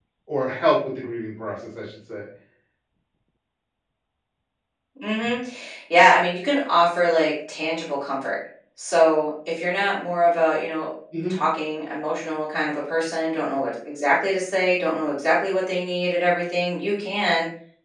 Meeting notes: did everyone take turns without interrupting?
Yes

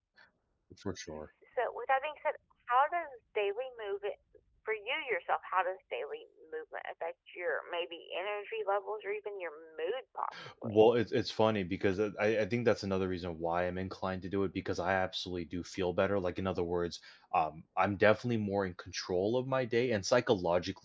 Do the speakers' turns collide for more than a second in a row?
No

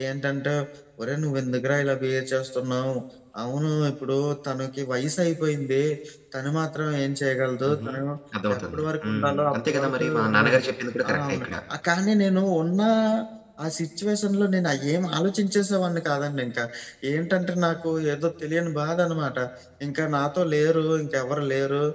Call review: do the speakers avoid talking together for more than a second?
No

